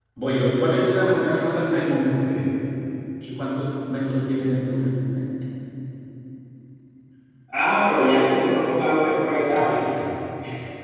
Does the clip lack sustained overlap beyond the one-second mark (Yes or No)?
Yes